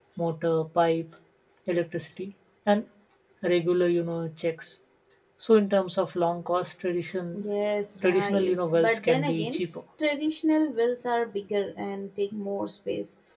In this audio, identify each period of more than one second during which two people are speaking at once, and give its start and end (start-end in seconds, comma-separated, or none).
8.0-9.6